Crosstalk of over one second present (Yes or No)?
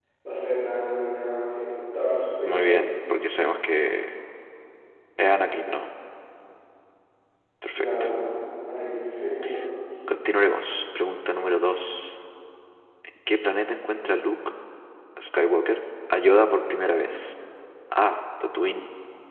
No